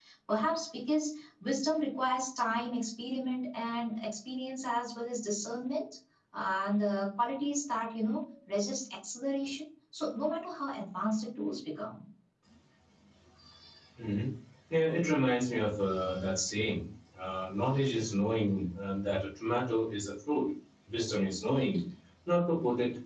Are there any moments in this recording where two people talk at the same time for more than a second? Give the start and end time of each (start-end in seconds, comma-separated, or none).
none